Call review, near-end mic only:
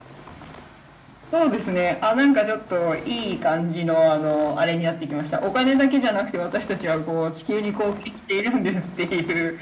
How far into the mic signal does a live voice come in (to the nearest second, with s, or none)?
none